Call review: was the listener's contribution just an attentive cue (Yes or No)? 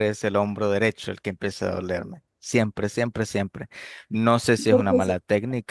Yes